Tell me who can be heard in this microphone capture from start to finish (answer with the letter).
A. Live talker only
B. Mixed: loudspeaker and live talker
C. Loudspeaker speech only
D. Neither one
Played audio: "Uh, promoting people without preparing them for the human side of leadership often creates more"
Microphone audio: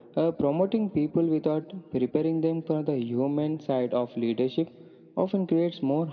C